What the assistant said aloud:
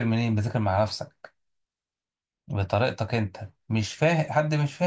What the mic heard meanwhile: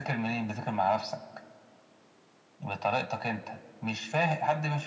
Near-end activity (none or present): none